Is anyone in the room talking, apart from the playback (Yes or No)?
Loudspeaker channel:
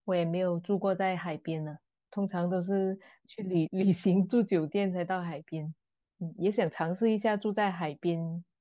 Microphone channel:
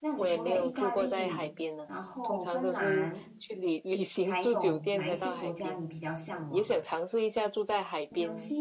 Yes